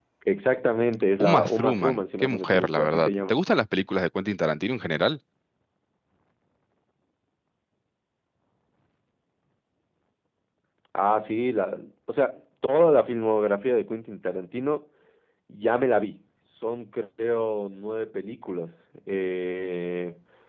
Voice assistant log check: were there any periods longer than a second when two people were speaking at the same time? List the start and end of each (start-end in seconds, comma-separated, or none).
1.2-3.4